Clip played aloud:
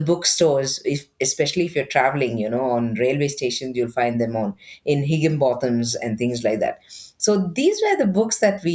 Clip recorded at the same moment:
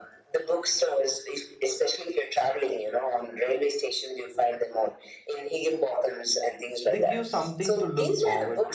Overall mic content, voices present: both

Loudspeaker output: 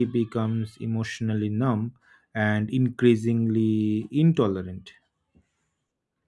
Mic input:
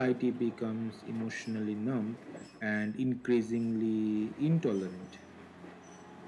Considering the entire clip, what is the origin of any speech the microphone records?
echo only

